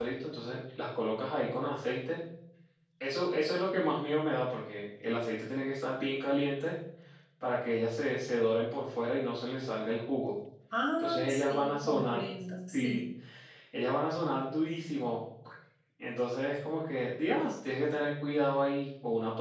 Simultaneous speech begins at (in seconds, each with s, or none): 11.0 s